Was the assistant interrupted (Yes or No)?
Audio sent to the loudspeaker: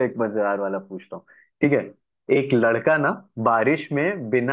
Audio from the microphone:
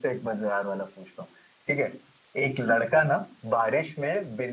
No